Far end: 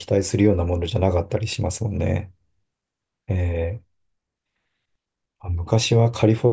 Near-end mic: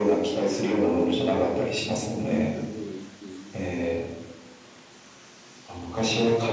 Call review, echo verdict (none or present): present